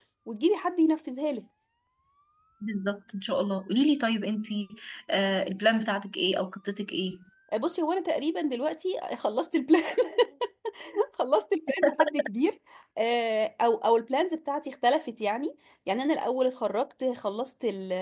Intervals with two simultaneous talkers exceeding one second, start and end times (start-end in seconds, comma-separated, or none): none